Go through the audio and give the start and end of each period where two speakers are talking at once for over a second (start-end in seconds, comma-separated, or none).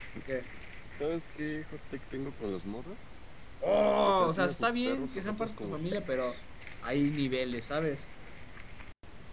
4.0-6.3